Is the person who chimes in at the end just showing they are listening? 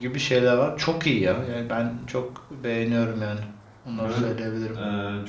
No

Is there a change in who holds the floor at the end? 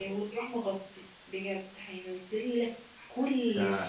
Yes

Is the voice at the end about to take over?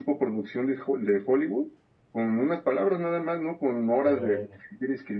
No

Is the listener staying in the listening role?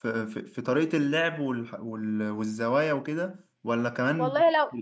No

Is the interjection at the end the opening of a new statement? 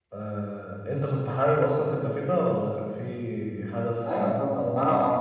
Yes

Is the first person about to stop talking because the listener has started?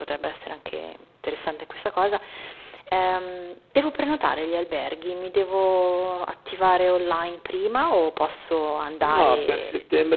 Yes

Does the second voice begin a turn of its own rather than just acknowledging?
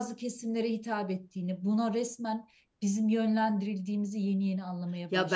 Yes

